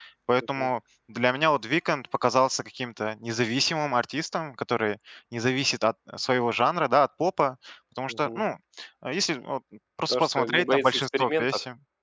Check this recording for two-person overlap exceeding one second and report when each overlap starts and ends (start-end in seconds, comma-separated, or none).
10.1-11.4